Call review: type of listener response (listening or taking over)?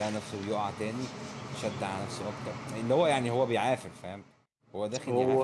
listening